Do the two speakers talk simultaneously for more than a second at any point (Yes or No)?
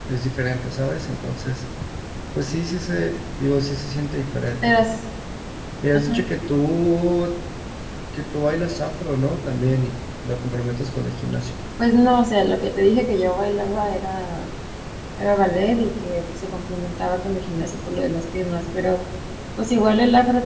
No